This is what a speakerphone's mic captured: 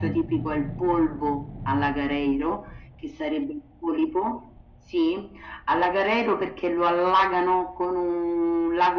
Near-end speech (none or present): none